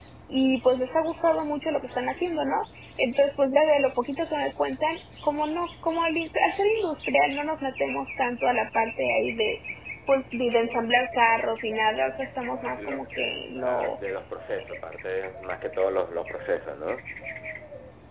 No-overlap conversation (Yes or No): No